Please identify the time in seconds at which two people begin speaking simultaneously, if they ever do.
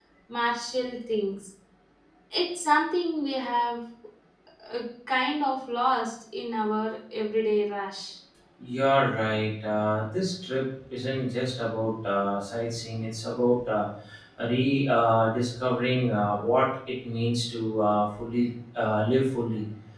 none

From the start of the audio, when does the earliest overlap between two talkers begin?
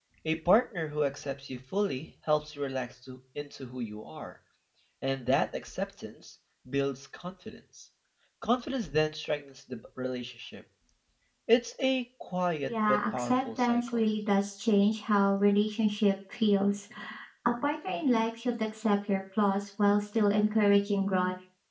13 s

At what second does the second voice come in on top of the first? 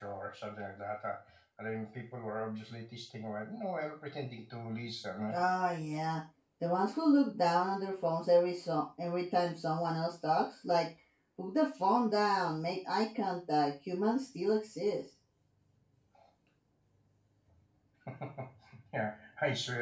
none

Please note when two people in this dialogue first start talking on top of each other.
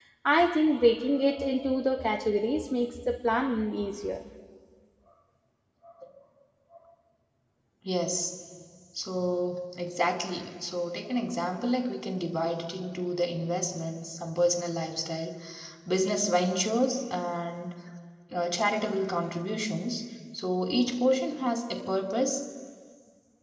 none

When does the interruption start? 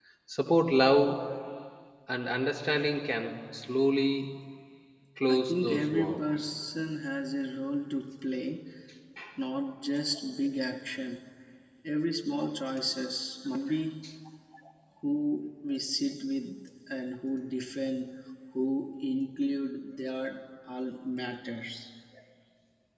5 s

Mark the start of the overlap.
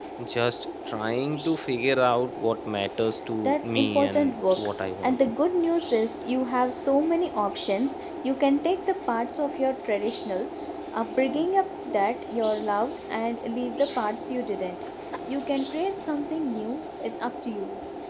3 s

